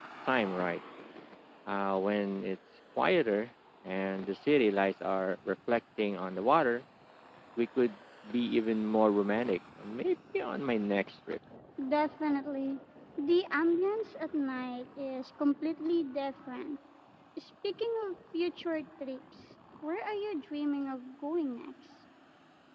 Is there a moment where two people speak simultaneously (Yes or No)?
No